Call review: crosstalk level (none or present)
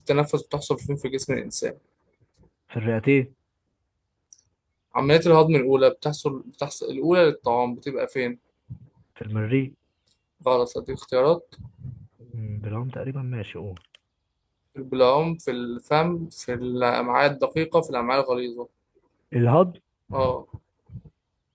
none